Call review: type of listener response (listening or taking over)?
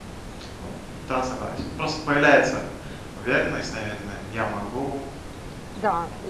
taking over